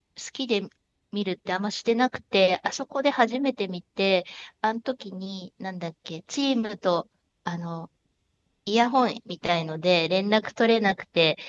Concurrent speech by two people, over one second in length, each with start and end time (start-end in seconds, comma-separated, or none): none